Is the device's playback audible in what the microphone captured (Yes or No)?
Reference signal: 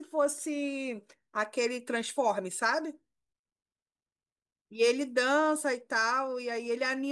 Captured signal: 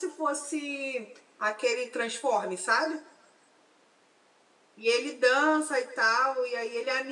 Yes